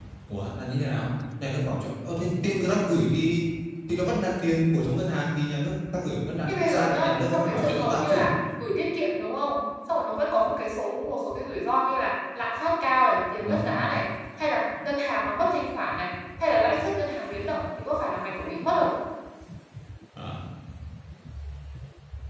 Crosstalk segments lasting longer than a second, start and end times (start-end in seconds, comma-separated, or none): 6.5-8.2